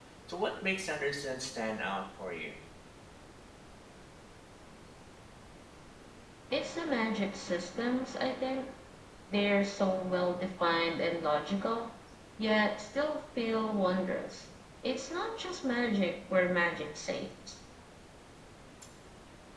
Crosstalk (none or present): none